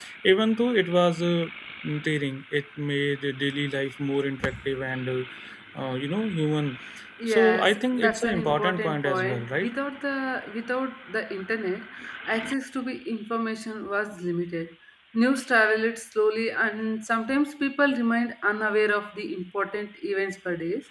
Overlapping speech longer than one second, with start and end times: 7.3-9.7

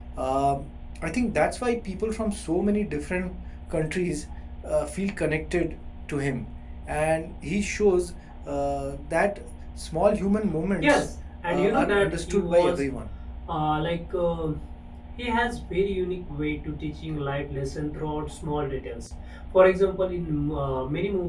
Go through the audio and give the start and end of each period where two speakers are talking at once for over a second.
11.5-12.8

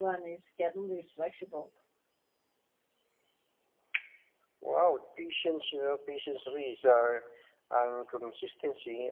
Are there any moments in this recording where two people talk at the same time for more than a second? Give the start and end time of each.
none

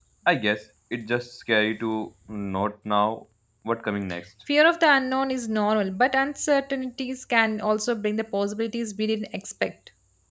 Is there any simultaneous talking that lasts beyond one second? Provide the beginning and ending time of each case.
none

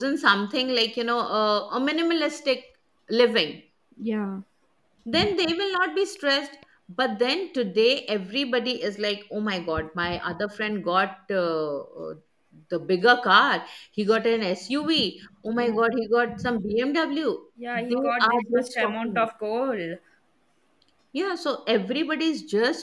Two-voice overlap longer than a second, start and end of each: 17.9-19.3

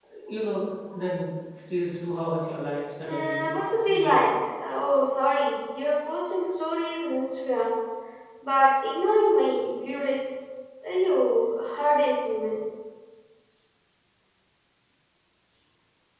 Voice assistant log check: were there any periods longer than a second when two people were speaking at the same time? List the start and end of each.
3.1-4.3

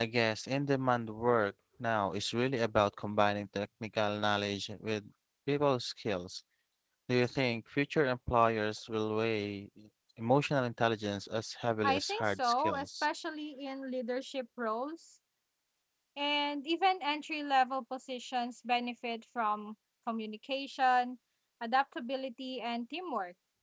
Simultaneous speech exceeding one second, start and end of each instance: 11.8-13.1

